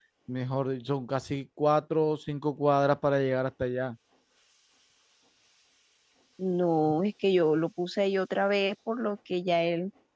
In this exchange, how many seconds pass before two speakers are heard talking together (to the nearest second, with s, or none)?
none